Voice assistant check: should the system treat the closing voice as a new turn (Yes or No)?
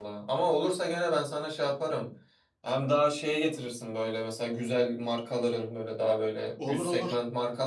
No